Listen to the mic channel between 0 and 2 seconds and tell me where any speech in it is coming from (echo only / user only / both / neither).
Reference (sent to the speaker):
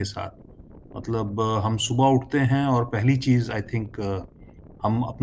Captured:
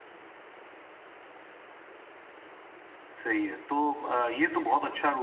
neither